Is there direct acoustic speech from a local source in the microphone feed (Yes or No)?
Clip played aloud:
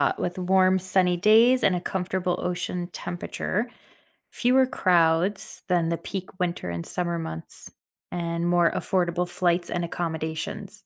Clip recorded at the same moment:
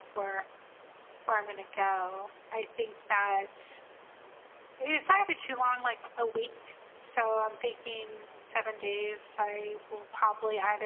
Yes